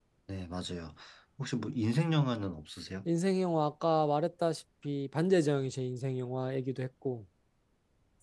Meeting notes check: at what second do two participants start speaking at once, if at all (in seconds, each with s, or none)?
none